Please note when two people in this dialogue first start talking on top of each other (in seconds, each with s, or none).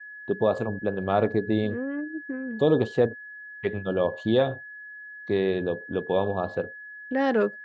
none